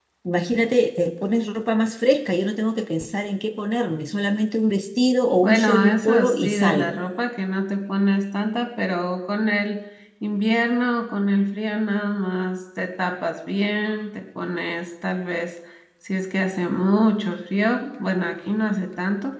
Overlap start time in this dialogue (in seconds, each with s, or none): 5.4 s